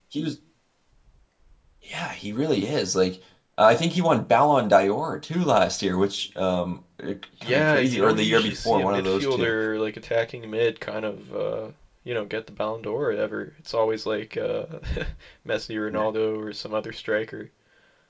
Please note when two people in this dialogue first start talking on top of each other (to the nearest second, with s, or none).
7 s